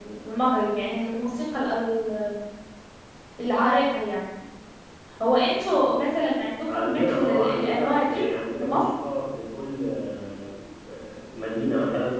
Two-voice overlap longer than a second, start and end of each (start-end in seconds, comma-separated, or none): 6.7-8.2